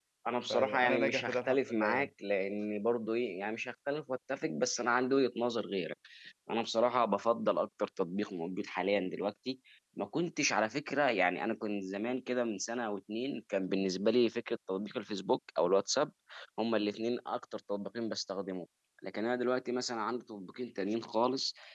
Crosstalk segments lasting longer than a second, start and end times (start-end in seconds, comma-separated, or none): 0.5-2.1